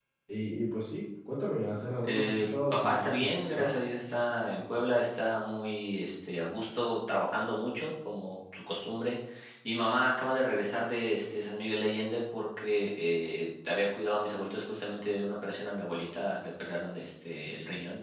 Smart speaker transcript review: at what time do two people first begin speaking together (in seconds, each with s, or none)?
2.0 s